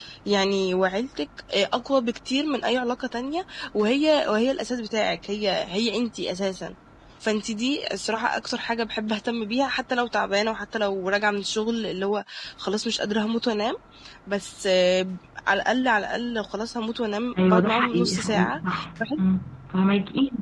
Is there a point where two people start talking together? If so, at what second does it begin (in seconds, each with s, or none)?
17.4 s